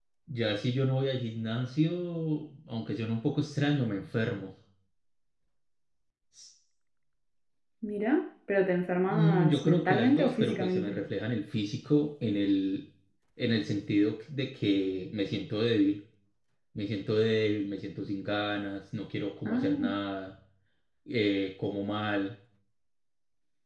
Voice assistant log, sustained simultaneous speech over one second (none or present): present